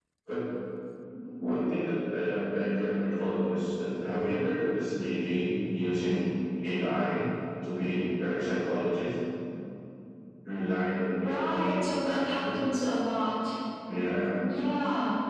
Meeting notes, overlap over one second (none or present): present